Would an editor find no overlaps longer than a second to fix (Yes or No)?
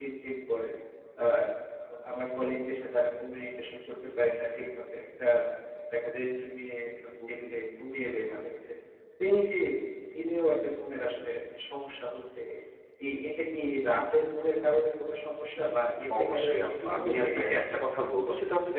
No